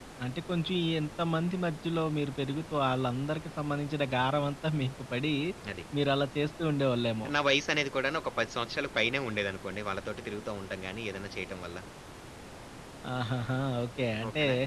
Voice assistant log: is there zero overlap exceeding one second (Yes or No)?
Yes